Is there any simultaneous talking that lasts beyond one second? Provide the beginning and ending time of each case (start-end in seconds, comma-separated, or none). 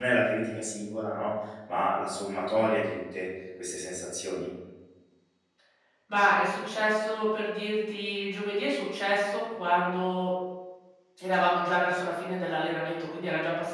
none